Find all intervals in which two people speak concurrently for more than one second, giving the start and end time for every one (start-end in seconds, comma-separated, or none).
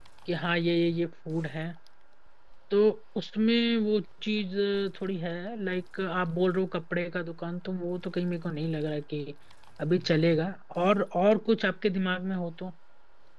none